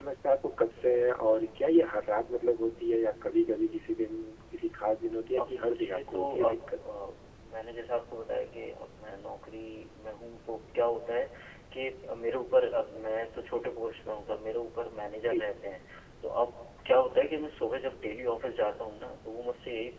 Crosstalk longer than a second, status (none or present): present